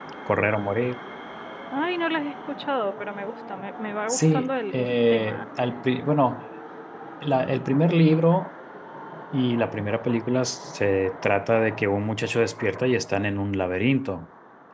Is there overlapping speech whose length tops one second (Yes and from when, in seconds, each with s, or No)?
Yes, from 4.1 s